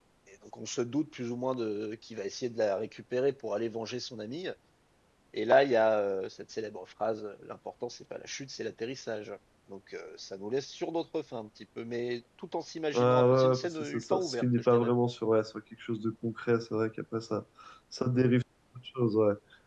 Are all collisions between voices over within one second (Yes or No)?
No